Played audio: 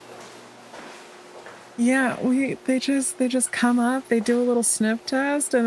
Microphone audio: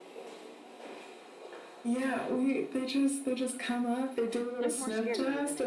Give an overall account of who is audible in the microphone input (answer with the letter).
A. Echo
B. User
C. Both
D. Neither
C